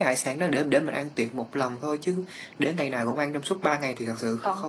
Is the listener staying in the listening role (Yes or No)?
No